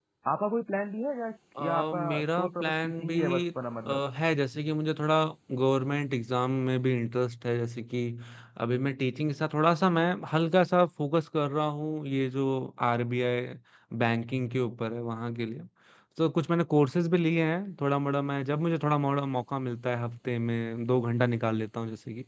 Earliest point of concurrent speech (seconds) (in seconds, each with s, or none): 1.6 s